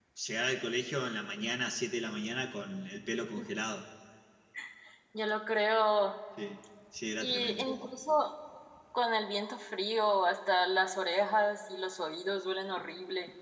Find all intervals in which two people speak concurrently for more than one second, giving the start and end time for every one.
none

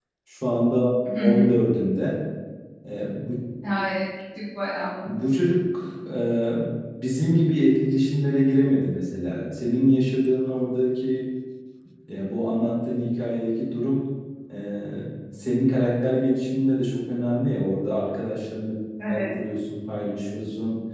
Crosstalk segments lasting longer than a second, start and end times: none

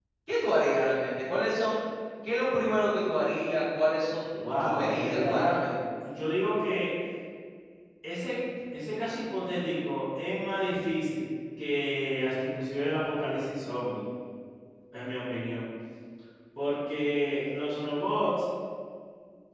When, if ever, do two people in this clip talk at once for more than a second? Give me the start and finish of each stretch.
4.3-5.6

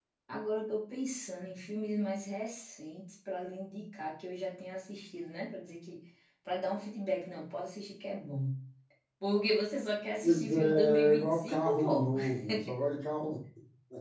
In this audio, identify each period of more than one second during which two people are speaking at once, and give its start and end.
10.2-12.1

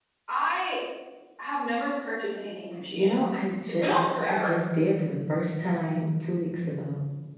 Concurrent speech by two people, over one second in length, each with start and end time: none

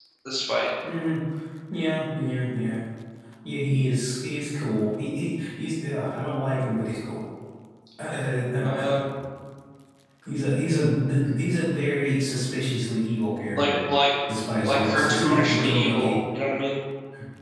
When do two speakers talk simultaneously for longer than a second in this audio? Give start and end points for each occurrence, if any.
14.6-16.1

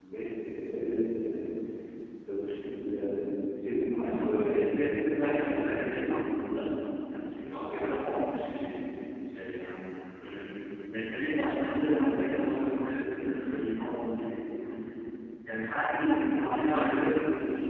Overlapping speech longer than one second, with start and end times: 4.0-5.7

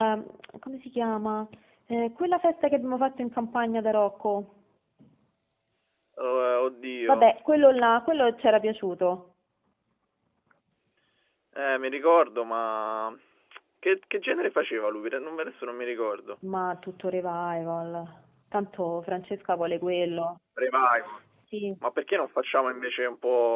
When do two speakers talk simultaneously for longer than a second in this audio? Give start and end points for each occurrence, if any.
none

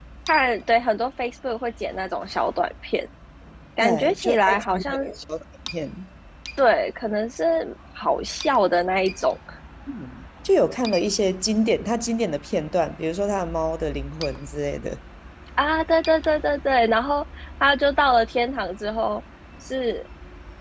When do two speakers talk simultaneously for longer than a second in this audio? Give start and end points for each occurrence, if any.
3.8-5.1

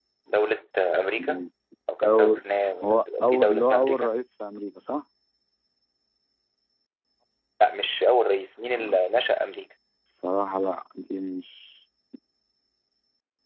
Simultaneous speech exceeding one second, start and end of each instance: 2.8-4.1

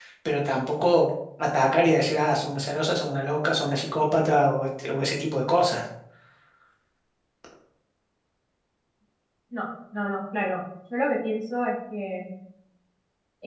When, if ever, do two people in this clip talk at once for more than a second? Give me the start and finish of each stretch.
none

